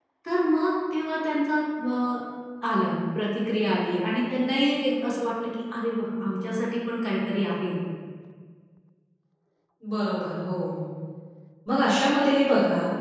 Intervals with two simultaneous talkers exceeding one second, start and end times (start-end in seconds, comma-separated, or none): none